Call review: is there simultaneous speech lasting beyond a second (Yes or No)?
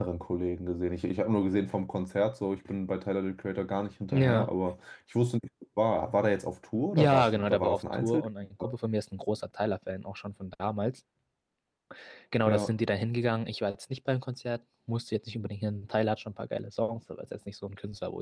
Yes